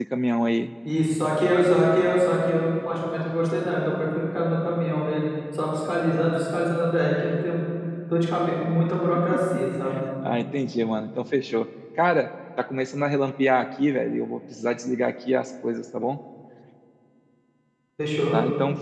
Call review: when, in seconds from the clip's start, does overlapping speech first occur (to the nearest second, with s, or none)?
none